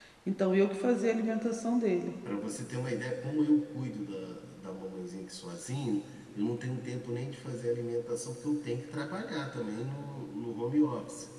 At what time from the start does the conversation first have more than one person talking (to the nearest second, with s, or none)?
none